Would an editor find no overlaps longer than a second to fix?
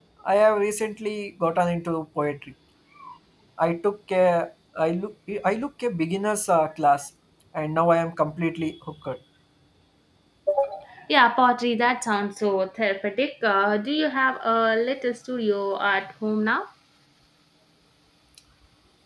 Yes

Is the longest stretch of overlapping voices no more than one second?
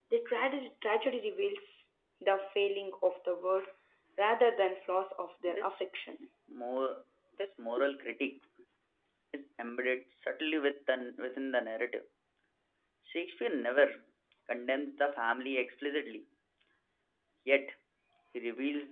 Yes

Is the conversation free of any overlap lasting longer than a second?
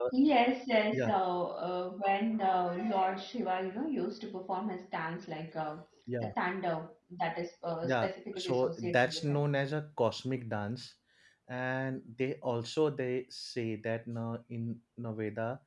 No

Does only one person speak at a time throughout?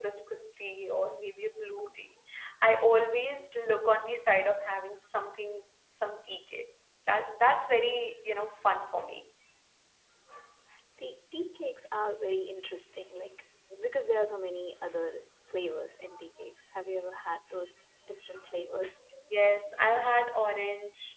Yes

